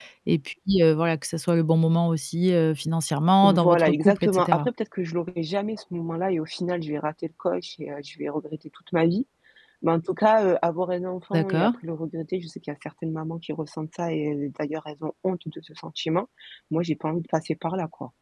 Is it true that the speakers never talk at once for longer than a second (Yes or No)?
No